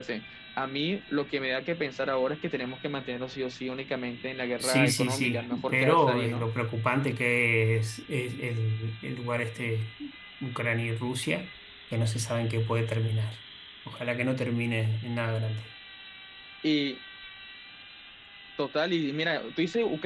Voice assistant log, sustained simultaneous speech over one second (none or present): present